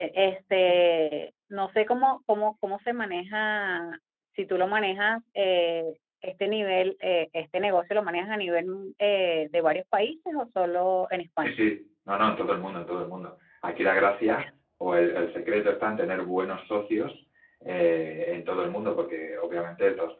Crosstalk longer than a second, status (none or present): none